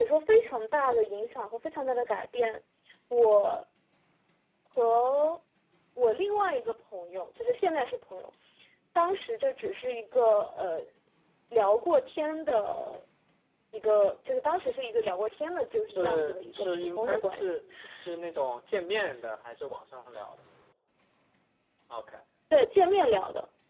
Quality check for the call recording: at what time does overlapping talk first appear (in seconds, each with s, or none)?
15.9 s